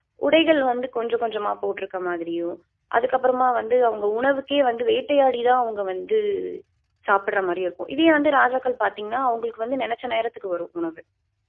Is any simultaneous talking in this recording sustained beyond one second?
No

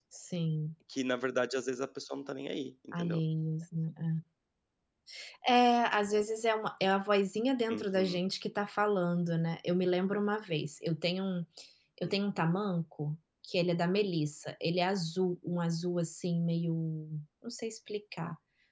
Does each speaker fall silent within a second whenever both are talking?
Yes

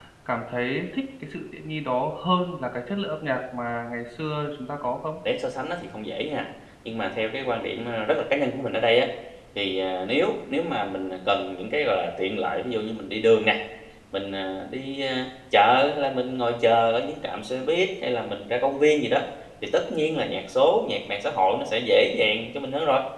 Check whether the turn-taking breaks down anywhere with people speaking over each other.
No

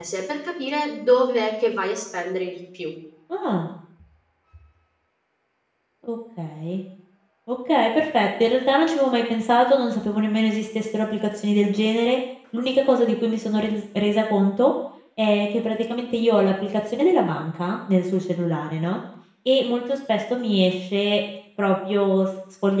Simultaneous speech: No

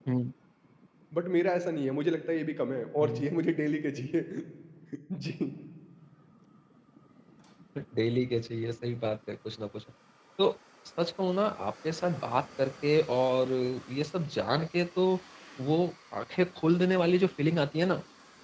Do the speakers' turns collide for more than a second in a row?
No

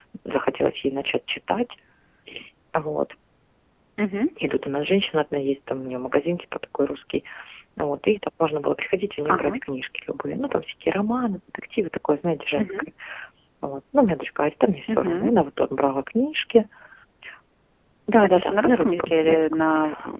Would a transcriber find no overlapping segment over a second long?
No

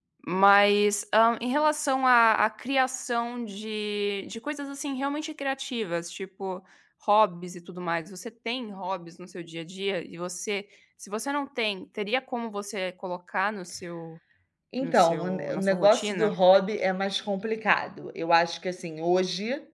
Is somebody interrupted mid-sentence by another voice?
Yes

